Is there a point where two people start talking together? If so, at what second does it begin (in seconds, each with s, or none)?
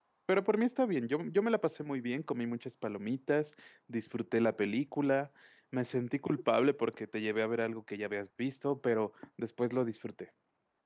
none